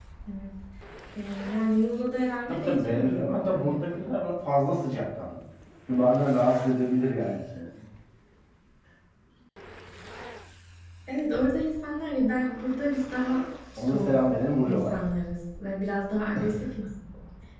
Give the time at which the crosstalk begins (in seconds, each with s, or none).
2.5 s